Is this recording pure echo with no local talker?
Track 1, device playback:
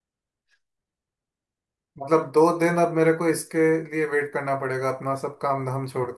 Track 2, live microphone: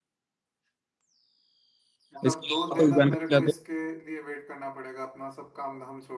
No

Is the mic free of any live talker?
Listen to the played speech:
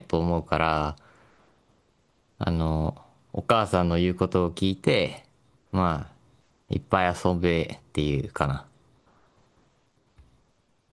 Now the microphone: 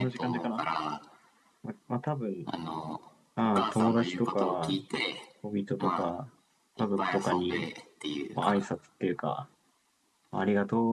No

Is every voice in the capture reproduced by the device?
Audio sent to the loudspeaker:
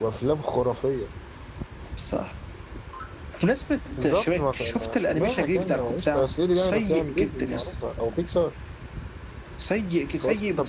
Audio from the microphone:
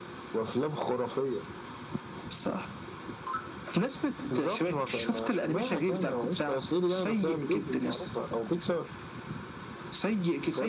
Yes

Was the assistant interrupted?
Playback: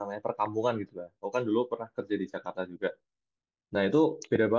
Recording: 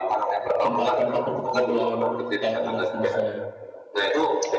Yes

